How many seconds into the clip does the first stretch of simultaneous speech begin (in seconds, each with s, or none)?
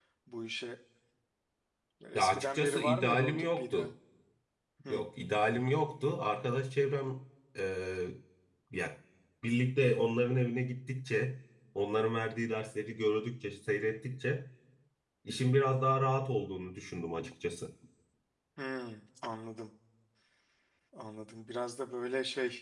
2.1 s